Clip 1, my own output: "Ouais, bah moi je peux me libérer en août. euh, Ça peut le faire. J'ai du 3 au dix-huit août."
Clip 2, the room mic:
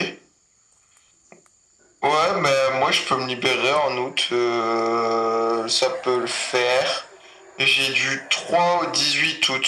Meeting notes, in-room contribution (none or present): none